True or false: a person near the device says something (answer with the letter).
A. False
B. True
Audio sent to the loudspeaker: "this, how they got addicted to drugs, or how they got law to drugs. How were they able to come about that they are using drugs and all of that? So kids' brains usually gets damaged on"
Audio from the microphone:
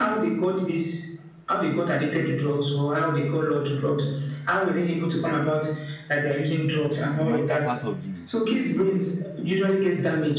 B